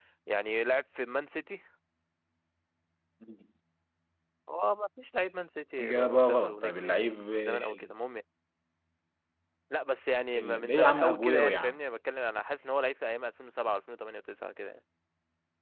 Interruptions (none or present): present